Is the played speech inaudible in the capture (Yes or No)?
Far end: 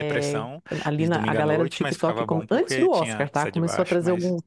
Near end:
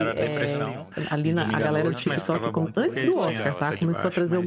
No